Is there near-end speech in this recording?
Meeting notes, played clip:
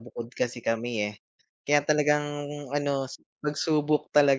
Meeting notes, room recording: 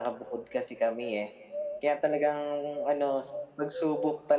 No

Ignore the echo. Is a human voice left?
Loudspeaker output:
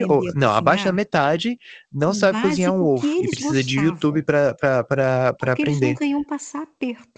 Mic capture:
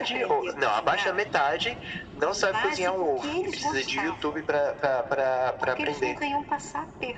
No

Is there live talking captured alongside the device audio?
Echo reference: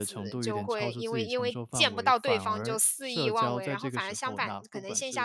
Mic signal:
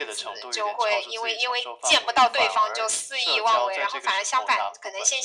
No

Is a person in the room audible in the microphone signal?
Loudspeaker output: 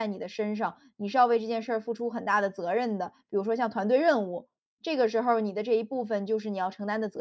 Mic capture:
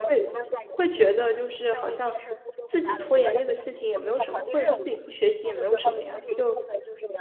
Yes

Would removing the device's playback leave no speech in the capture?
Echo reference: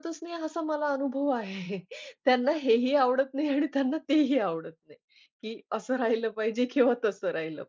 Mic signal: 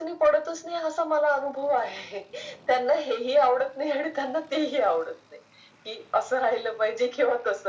Yes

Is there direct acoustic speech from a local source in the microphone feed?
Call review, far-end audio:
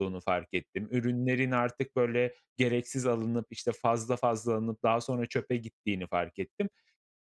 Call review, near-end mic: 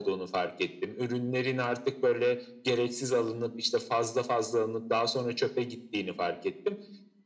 No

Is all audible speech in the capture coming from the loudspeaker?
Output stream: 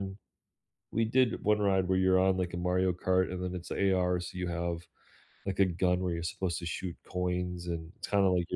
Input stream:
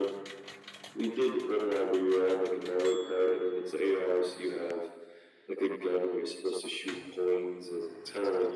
Yes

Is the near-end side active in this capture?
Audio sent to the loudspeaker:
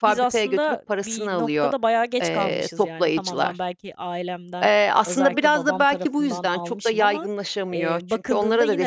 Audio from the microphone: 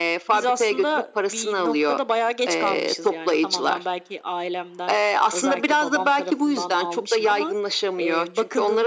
No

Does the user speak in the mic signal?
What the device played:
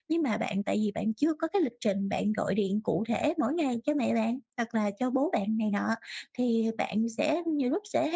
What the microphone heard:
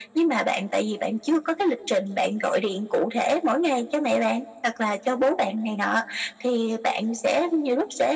No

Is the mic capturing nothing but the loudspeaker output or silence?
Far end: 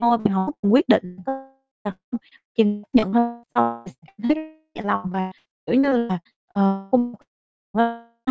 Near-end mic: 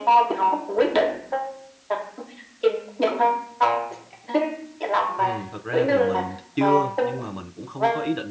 No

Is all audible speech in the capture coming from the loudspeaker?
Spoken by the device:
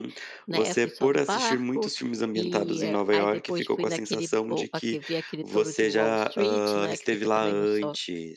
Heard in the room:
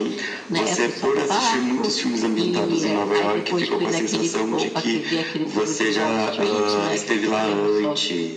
Yes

